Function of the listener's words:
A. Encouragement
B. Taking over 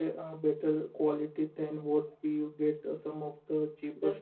B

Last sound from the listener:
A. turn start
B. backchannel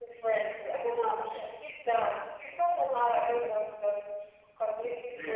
B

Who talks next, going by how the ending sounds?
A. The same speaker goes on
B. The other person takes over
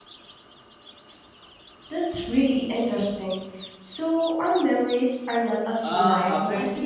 B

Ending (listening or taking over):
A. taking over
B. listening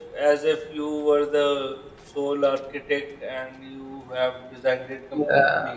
A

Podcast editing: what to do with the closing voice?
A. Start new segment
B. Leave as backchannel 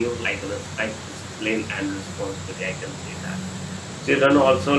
B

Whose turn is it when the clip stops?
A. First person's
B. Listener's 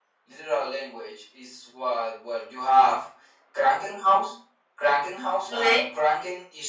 A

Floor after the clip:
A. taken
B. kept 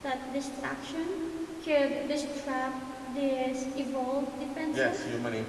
A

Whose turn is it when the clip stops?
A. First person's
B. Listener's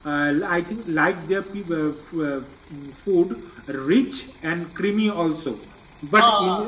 A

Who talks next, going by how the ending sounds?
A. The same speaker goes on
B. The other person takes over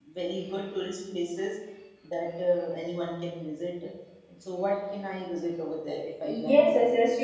B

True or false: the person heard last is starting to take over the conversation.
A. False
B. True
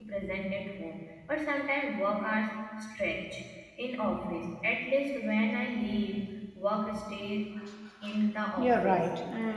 B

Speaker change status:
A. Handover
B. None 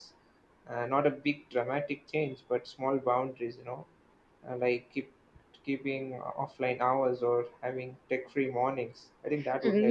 A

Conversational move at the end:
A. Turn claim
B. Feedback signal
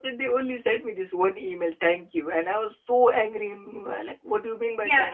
A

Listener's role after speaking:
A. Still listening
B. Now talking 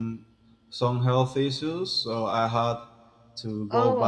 A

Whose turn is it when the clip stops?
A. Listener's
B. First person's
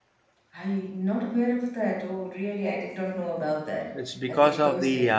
A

